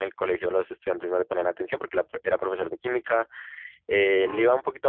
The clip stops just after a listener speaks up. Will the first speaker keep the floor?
Yes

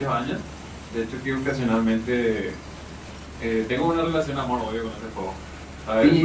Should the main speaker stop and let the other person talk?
Yes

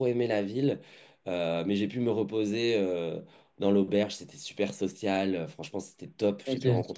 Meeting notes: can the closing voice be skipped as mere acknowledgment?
Yes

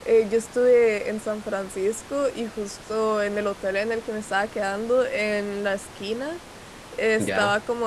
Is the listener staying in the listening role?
Yes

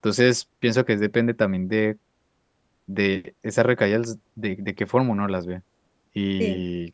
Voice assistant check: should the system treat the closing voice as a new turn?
No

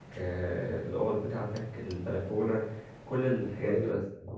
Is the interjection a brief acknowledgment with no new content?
No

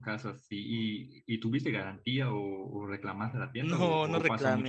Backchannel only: No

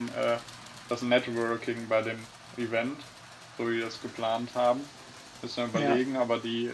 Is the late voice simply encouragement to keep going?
Yes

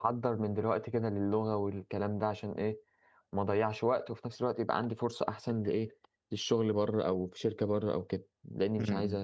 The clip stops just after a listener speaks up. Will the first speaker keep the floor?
No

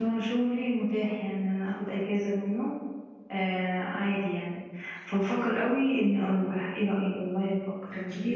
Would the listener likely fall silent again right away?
No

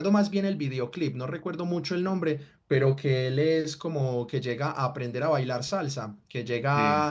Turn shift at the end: No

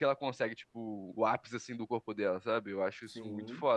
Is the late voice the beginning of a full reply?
No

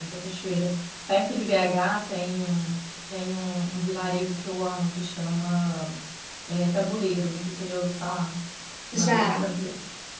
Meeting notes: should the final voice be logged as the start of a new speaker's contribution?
No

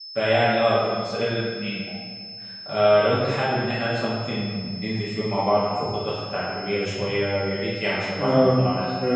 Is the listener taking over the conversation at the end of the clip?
Yes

